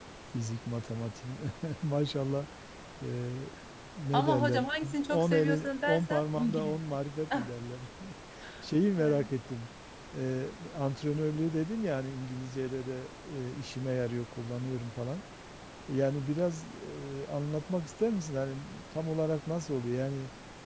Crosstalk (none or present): present